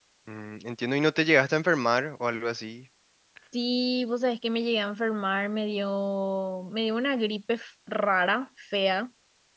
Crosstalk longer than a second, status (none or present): none